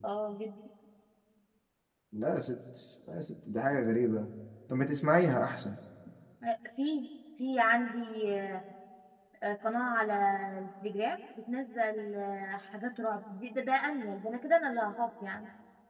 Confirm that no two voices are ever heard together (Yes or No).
Yes